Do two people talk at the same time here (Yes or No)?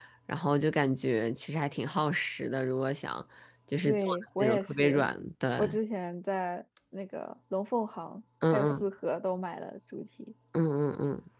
Yes